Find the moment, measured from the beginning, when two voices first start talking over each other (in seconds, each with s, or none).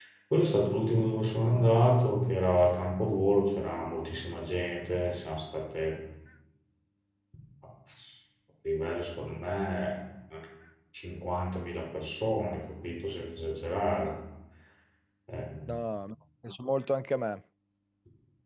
none